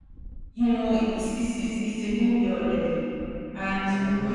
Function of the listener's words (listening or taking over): listening